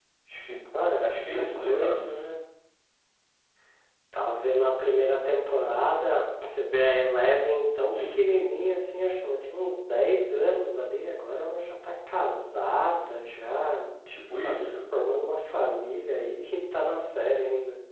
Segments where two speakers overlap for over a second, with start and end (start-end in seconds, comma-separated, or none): 1.0-2.3